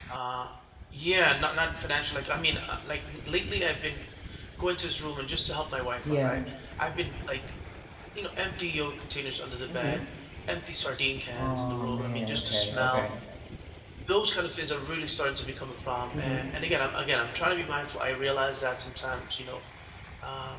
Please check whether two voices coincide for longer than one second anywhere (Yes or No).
Yes